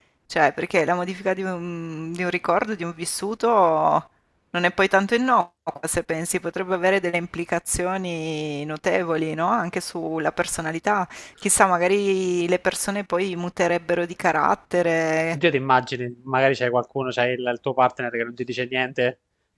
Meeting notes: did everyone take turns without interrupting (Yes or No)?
Yes